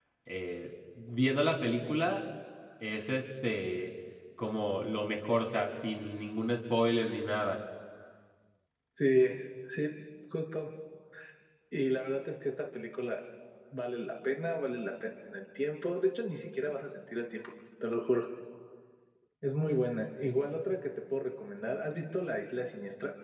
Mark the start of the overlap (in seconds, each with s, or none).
none